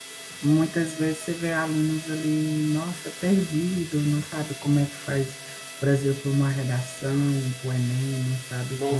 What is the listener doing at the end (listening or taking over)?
taking over